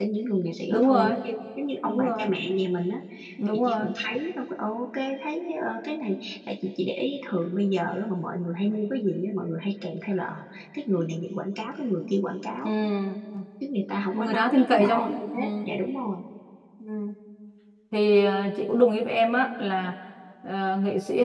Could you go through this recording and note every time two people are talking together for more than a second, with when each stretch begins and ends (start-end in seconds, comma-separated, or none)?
14.1-15.6